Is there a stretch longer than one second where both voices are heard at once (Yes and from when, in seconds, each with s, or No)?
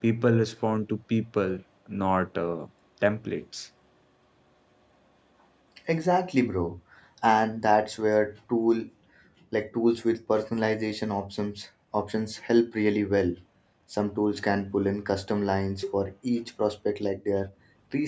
No